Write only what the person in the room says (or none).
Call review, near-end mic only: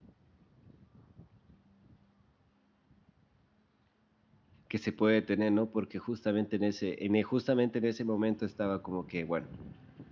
que se puede tener, ¿no? Porque justamente en ese en e justamente en ese momento estaba como que, bueno,